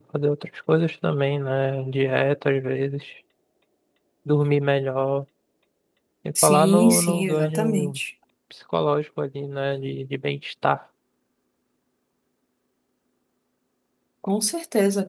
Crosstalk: present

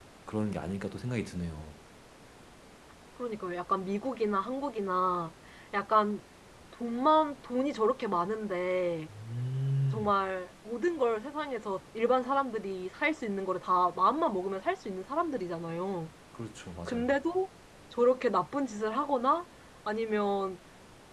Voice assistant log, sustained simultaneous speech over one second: none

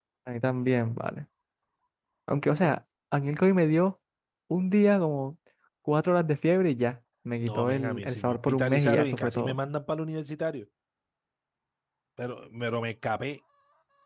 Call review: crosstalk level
present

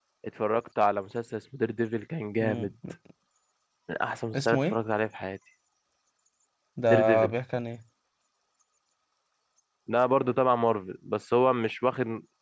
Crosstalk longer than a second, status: none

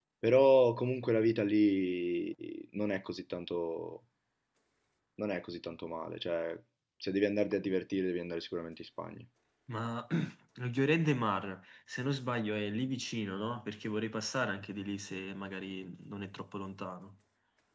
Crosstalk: none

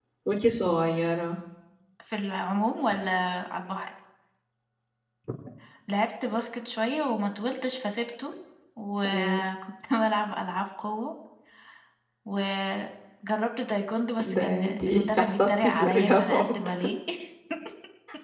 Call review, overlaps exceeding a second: present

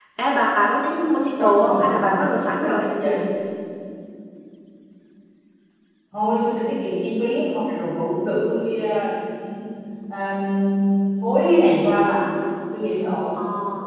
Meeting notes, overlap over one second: present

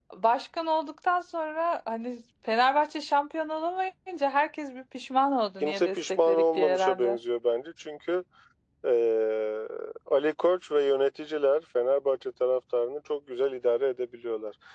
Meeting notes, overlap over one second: present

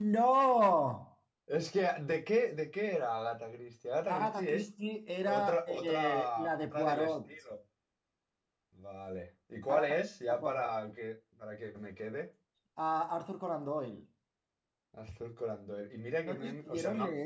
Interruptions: present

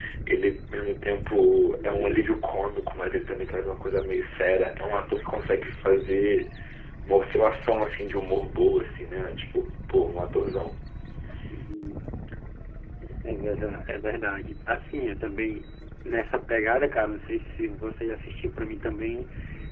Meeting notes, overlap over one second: none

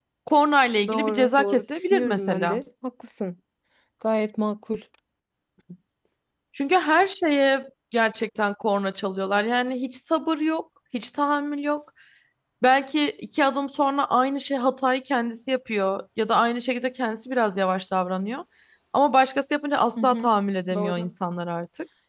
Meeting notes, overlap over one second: present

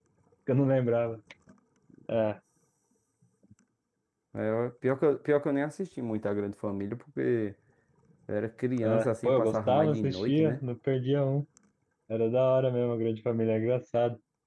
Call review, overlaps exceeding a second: present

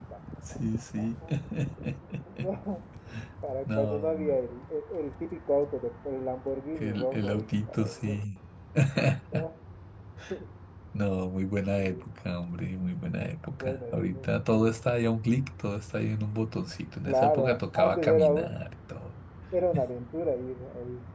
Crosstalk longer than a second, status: present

